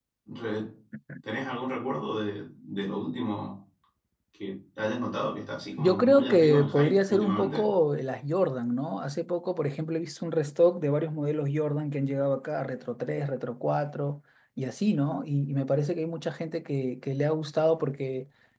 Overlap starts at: 5.8 s

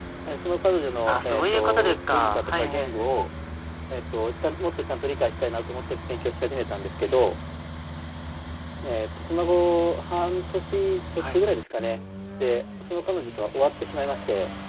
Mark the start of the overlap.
1.1 s

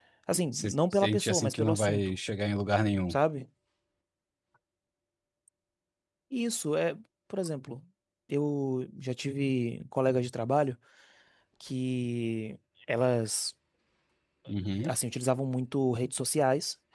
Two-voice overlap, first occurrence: 0.5 s

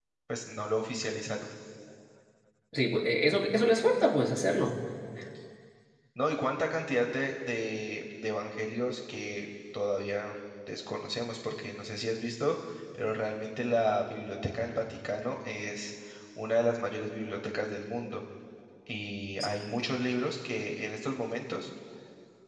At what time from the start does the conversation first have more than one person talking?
none

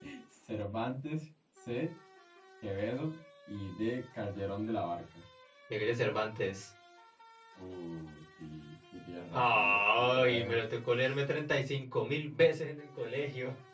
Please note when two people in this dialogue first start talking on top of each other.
9.3 s

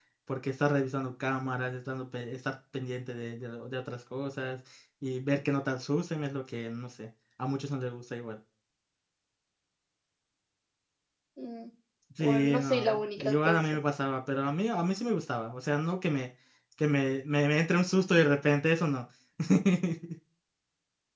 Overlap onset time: 12.2 s

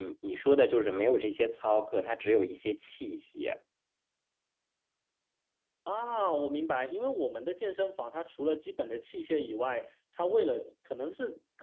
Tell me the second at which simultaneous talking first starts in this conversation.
none

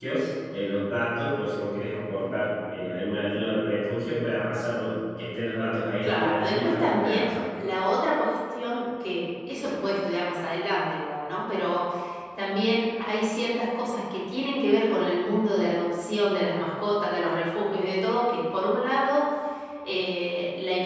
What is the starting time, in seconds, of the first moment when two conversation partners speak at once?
6.0 s

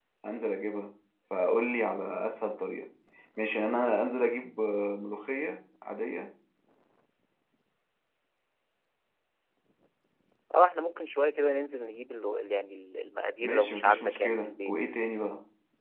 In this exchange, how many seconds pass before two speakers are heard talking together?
13.4 s

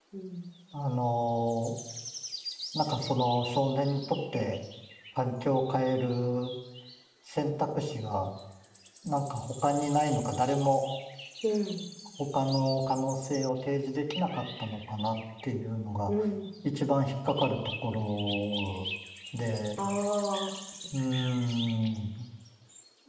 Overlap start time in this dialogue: none

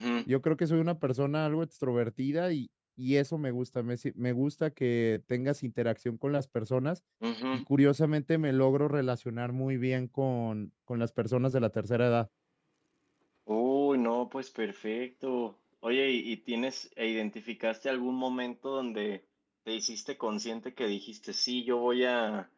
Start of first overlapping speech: none

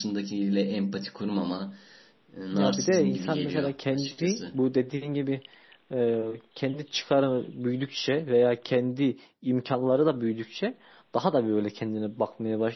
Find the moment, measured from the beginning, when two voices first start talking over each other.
2.5 s

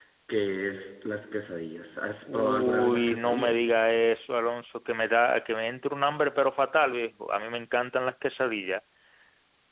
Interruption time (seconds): 2.3 s

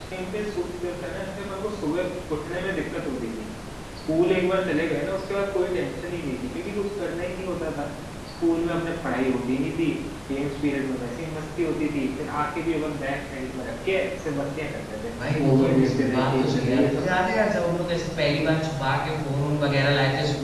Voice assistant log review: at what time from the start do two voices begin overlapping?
15.2 s

